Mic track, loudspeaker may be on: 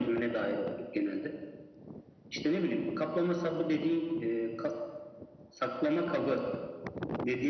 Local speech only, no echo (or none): none